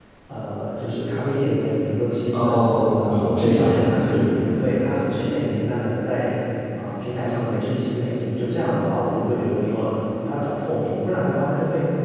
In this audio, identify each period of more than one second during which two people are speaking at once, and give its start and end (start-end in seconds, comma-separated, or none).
2.3-3.7